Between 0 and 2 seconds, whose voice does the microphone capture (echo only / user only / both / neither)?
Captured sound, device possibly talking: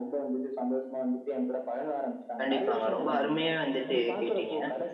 echo only